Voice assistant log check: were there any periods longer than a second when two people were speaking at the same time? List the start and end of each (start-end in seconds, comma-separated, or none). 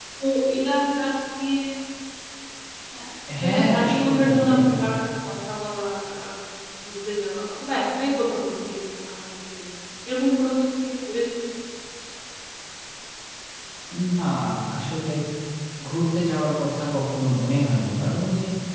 3.4-4.8